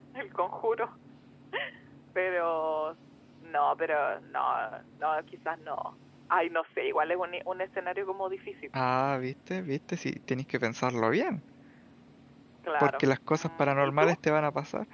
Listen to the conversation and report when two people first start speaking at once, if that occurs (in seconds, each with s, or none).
12.8 s